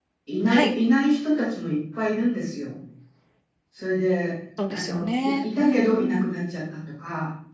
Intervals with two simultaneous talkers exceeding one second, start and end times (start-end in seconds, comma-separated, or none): 4.7-6.3